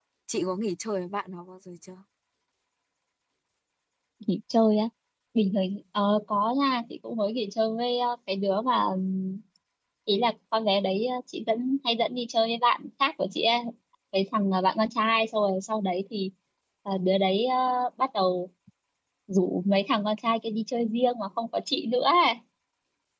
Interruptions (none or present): none